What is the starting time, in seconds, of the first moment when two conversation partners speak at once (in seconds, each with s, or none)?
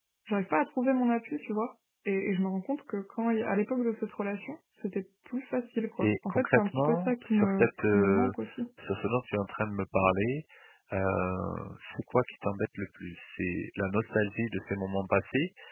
6.0 s